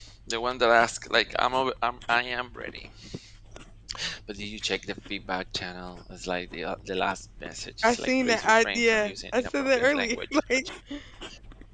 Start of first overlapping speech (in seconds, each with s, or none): 7.8 s